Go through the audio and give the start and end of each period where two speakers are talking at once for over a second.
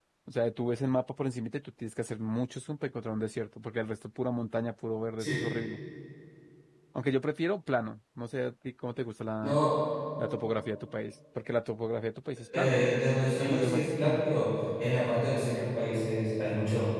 12.6-14.2

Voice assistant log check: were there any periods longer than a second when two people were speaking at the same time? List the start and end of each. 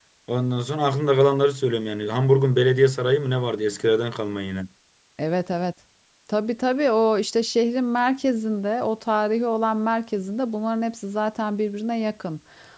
none

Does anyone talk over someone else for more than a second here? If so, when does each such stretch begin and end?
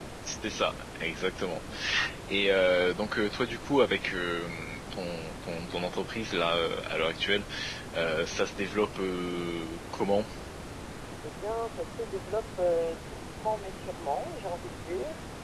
none

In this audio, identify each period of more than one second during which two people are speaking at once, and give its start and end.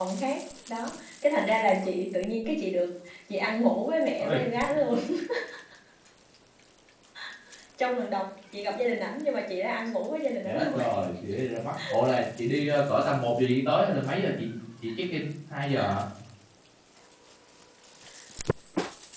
none

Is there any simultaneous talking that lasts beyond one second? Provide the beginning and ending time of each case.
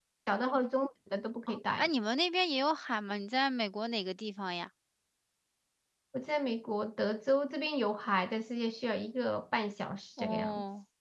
none

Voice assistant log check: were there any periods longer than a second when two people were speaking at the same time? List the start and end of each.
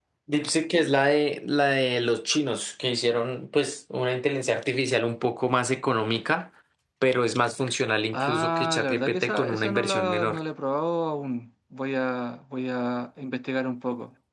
8.1-10.4

